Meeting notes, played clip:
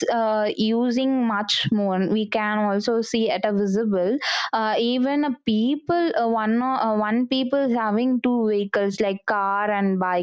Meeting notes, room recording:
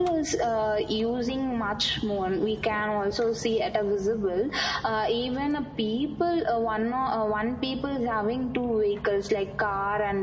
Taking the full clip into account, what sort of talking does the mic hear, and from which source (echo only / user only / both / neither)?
echo only